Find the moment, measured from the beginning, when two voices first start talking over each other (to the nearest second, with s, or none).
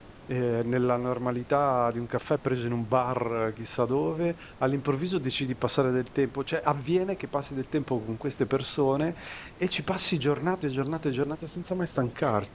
none